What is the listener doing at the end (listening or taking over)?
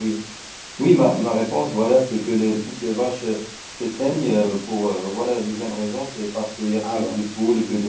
listening